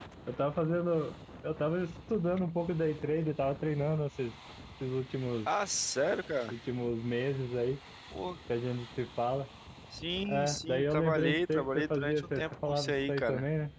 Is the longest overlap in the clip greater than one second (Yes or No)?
Yes